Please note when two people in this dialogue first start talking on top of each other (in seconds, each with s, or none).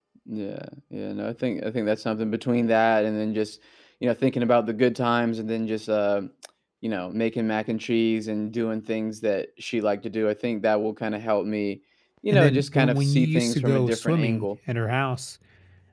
12.3 s